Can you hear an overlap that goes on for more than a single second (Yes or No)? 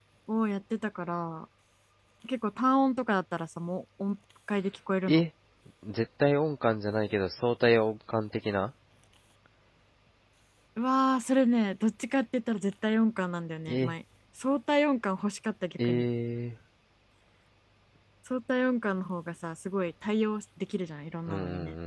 No